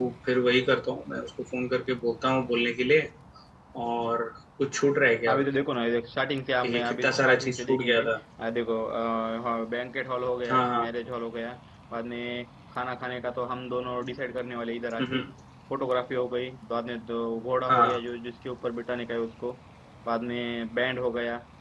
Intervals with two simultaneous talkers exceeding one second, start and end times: 6.6-8.1

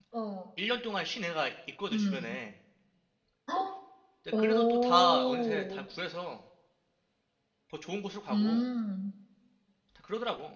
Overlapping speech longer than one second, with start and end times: 4.4-5.8

